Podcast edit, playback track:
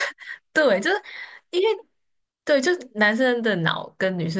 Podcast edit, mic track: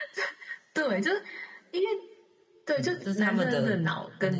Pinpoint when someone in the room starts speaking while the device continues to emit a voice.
2.8 s

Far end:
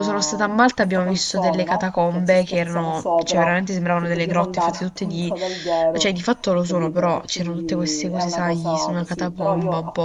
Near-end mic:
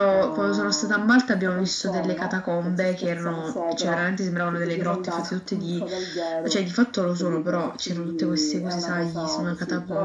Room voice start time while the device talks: none

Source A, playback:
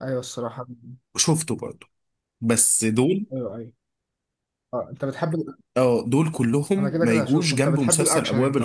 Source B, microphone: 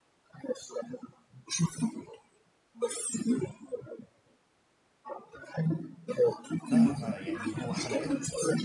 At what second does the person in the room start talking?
6.7 s

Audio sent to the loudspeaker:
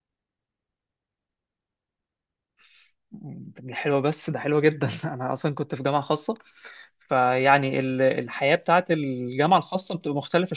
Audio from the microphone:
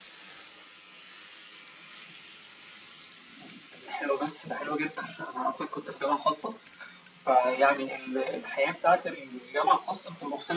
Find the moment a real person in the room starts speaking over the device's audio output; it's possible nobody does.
none

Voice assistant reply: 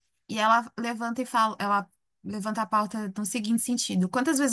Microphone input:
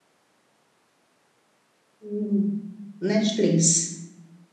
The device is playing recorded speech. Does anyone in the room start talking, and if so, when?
2.0 s

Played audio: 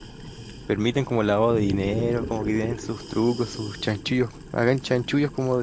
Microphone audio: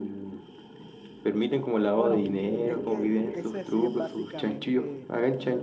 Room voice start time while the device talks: 1.9 s

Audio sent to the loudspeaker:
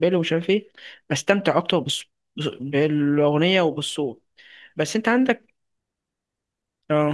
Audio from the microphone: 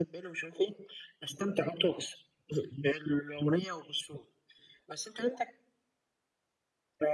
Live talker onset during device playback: none

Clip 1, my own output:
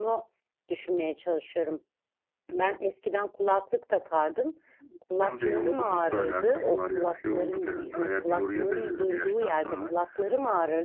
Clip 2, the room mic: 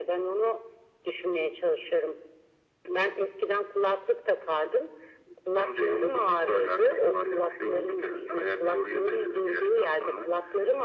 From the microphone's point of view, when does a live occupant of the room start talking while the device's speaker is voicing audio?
none

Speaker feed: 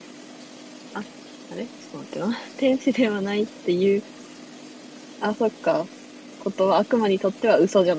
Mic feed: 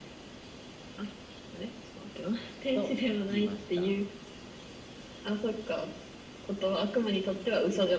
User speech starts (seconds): 2.7 s

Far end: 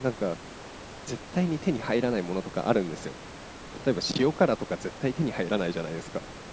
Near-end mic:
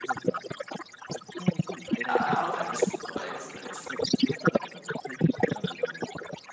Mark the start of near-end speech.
2.0 s

